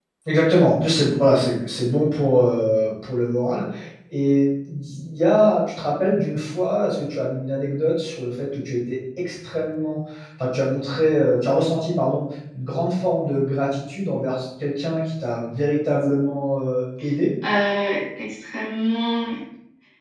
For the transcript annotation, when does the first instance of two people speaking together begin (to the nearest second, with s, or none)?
none